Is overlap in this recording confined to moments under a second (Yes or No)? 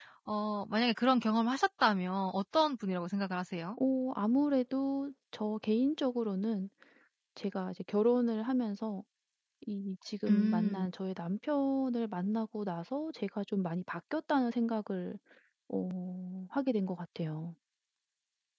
Yes